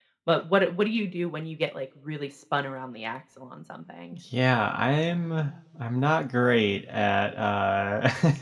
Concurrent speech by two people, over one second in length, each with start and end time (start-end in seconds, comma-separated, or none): none